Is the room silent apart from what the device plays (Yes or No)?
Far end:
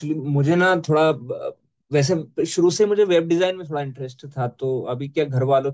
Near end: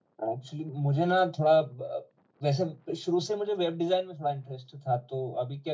Yes